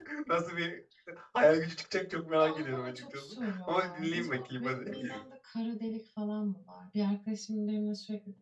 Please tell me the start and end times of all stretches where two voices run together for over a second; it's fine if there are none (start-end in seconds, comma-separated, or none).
2.4-4.9